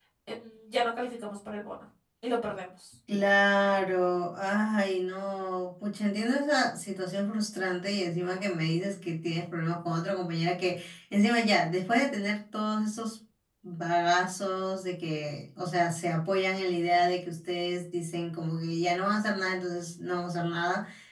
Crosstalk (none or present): none